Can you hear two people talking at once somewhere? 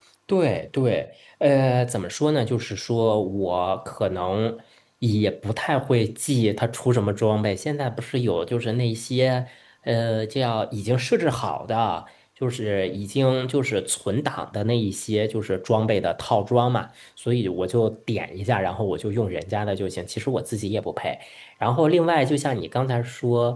No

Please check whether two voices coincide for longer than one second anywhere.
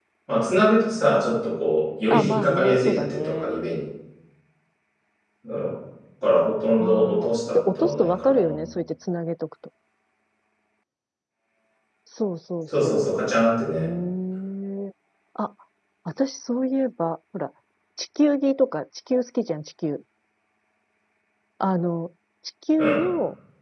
Yes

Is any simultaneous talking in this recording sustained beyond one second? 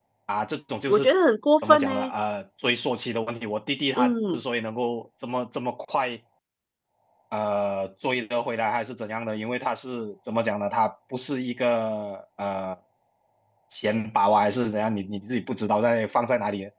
No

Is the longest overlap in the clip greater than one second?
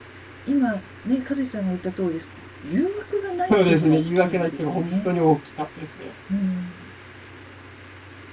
Yes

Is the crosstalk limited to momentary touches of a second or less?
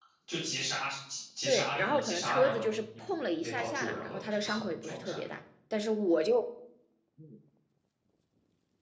No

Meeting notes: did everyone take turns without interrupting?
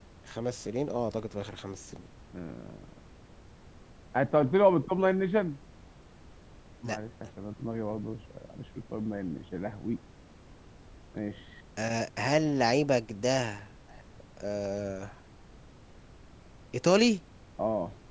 Yes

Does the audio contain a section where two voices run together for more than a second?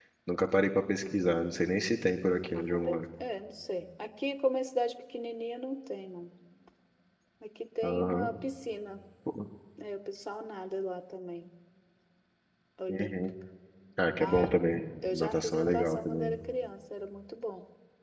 Yes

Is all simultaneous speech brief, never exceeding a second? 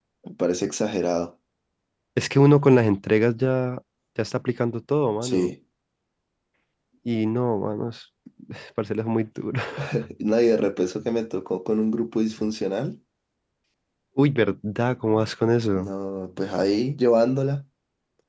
Yes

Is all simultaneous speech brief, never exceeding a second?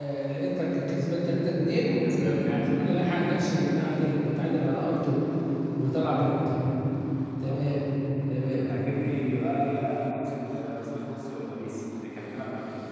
No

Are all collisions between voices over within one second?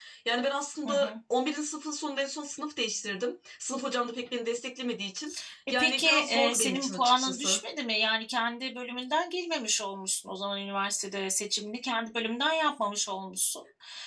No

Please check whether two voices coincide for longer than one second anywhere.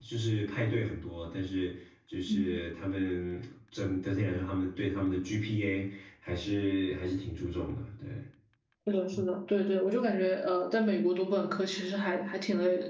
No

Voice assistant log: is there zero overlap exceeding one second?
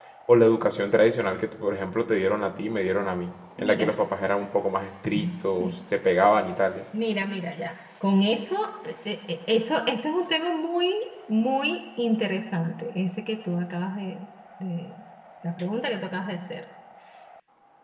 Yes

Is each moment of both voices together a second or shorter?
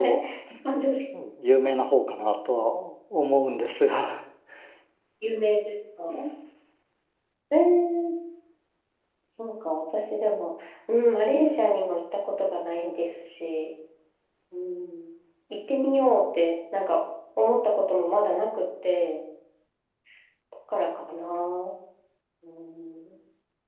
Yes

